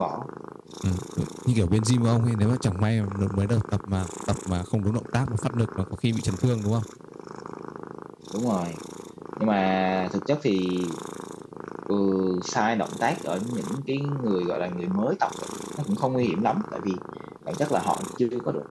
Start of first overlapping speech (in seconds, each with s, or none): none